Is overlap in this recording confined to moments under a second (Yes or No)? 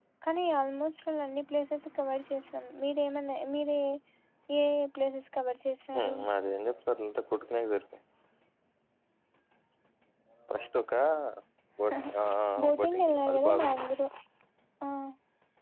No